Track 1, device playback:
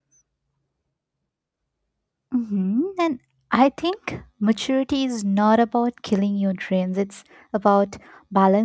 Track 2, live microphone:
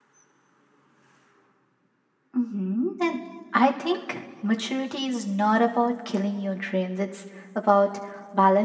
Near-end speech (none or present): none